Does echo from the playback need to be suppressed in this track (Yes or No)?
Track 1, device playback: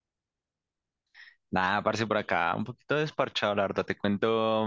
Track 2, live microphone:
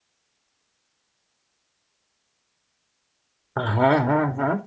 No